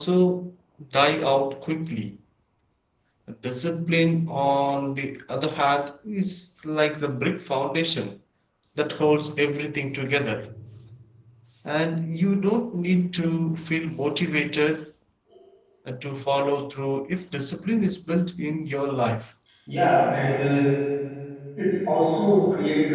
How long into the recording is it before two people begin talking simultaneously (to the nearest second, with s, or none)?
none